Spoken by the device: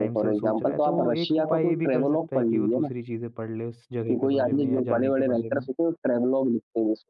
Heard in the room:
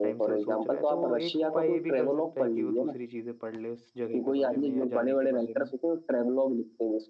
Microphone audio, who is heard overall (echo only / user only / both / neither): echo only